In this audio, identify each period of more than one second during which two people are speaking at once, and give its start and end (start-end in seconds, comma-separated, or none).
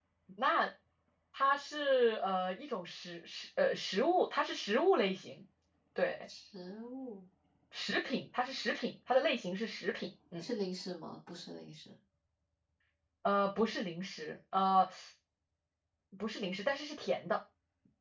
none